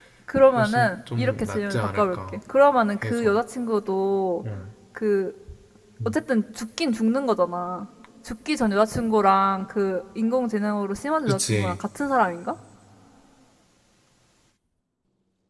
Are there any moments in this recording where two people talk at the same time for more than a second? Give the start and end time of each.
0.6-2.2

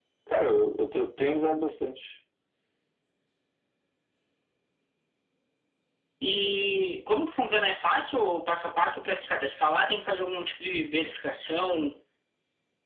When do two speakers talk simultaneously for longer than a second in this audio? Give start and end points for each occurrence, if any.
none

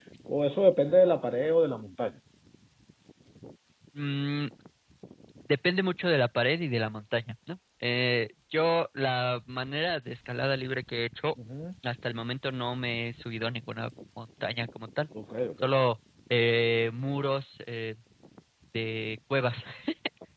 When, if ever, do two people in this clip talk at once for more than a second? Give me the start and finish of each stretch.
none

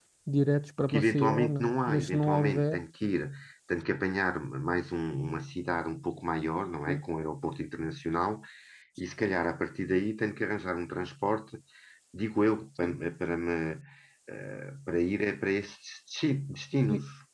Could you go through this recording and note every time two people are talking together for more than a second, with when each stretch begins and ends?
0.8-2.8

